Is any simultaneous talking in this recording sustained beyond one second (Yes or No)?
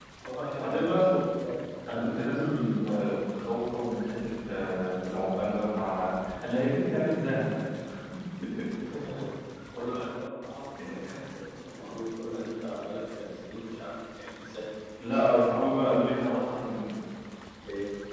No